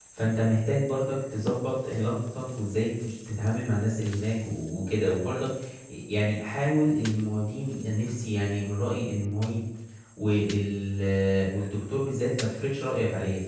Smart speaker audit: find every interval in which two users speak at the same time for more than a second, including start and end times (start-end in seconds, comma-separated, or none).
none